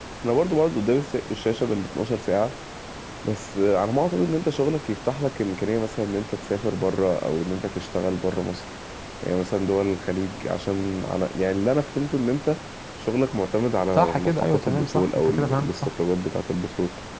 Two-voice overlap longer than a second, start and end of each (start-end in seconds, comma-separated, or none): 14.0-15.9